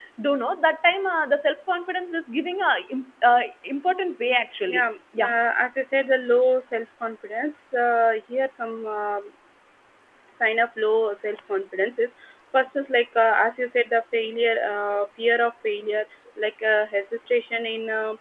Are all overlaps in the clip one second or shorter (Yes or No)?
Yes